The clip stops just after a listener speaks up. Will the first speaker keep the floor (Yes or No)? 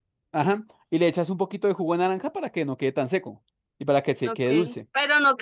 No